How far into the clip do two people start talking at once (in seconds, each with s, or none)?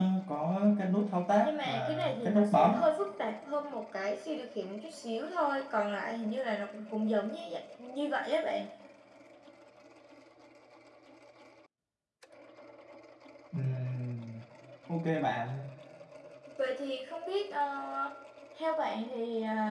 1.4 s